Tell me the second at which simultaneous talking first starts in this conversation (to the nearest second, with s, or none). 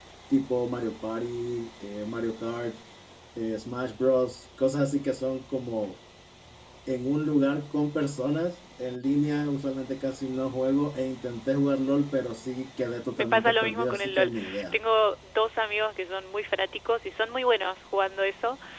13 s